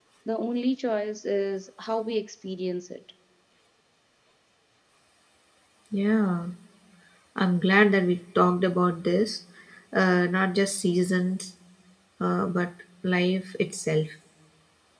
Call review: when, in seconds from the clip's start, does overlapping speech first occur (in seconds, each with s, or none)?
none